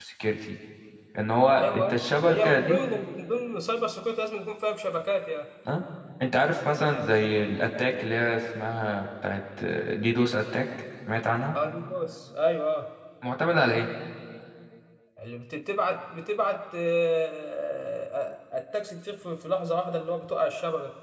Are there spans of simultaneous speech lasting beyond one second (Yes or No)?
Yes